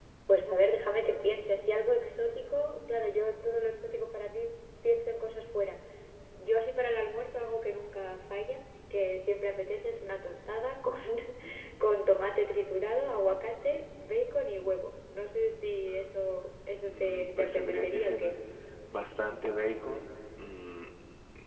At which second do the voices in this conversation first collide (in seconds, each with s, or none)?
16.8 s